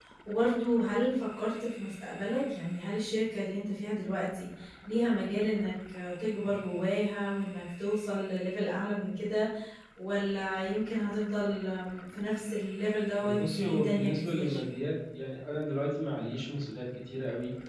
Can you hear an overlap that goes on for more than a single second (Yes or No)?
Yes